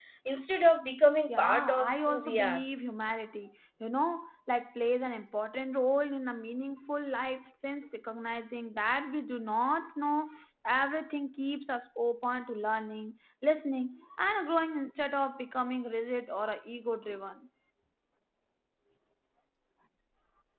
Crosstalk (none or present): present